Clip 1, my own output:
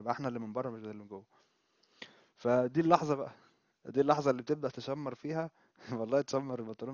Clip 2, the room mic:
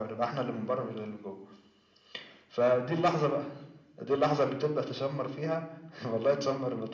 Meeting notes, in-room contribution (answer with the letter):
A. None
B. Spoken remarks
A